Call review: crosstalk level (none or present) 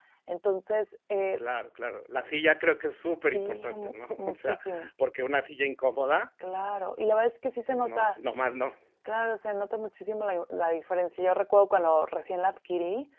present